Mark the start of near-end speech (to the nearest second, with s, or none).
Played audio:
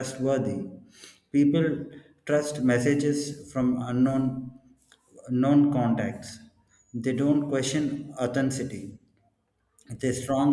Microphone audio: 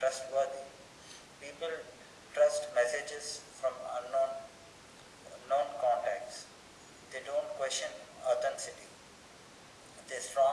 none